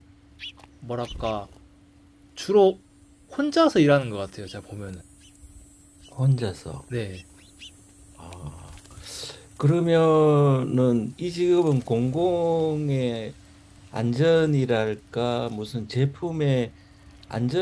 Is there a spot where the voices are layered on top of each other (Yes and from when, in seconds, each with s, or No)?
No